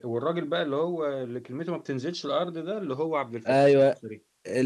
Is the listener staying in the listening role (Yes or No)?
No